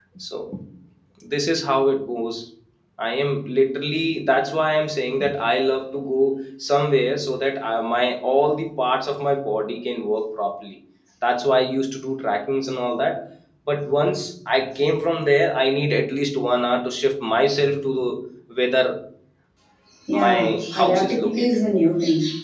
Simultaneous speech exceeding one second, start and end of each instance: 20.1-21.6

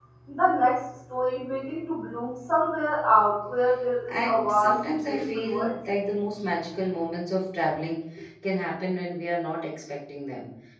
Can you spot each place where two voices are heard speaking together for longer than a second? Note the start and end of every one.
4.1-5.7

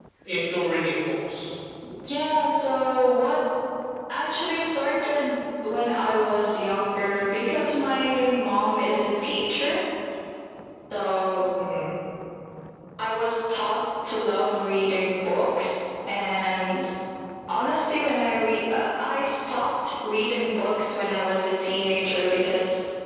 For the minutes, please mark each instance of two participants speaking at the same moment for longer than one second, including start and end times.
none

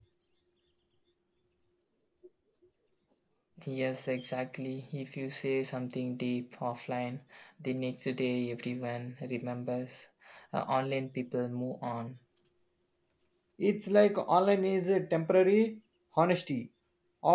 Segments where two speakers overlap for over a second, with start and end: none

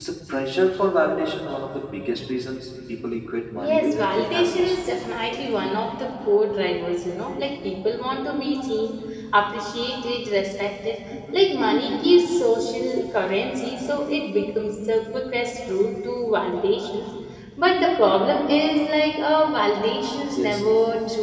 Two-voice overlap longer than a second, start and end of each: 3.5-4.8

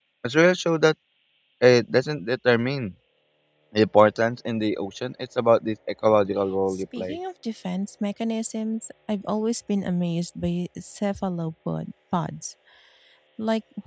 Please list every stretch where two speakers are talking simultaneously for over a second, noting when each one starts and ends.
none

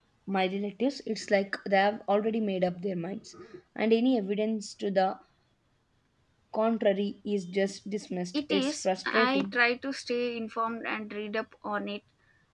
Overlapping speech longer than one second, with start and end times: 8.3-9.6

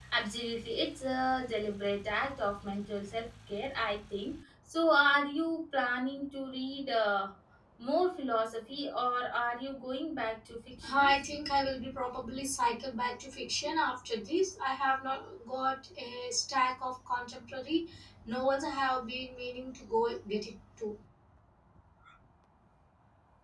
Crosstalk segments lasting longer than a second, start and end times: none

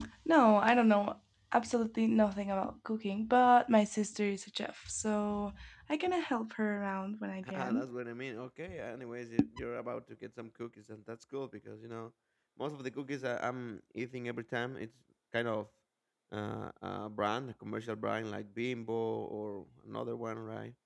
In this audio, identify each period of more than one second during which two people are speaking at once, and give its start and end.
none

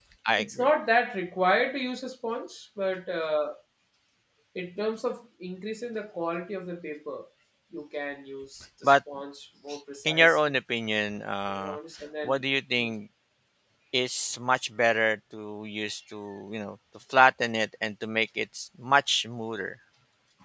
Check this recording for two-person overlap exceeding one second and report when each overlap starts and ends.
none

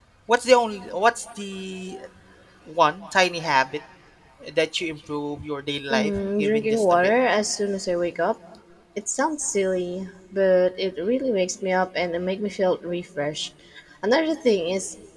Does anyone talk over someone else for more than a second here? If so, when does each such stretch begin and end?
5.9-7.1

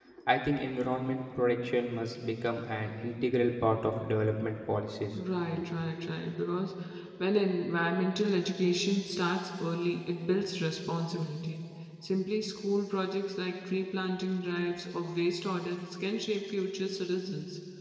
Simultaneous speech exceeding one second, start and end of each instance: none

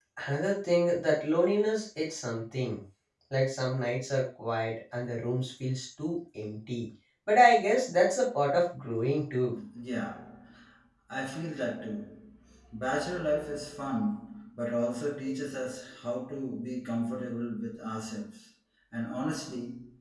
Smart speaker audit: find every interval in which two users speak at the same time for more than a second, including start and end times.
none

